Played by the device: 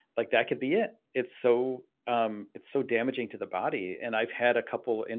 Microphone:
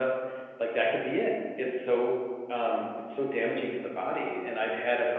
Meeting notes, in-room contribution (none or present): none